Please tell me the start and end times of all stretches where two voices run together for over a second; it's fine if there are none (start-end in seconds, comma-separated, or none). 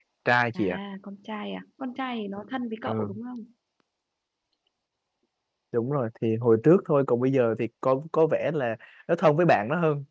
none